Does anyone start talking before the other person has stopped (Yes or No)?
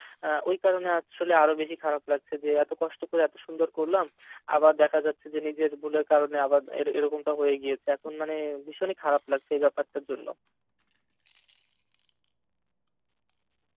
No